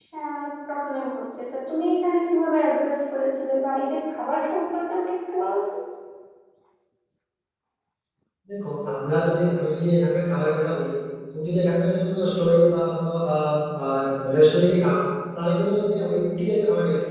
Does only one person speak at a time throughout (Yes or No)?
Yes